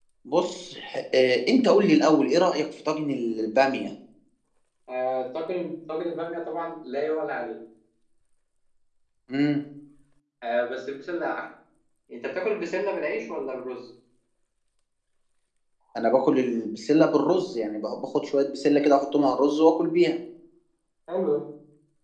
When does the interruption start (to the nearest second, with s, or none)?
none